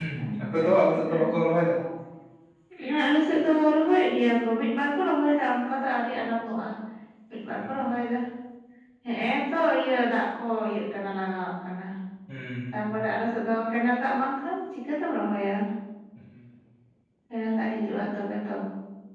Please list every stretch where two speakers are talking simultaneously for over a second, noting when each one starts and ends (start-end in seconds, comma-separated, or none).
none